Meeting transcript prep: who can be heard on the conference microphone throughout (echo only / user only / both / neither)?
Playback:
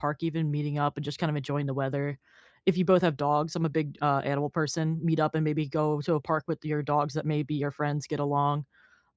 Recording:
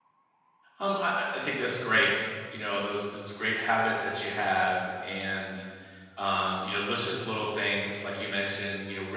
user only